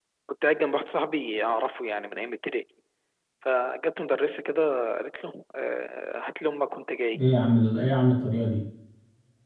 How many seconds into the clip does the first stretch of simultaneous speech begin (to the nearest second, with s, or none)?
none